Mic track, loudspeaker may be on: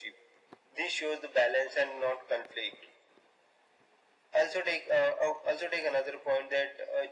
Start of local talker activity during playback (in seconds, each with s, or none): none